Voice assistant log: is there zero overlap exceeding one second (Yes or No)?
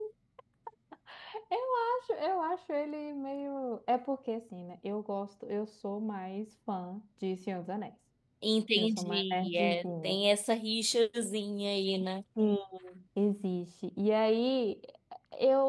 No